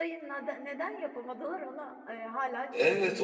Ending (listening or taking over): taking over